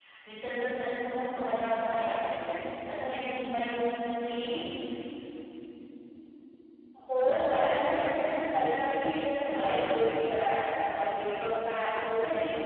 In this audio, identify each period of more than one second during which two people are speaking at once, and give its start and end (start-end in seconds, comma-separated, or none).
none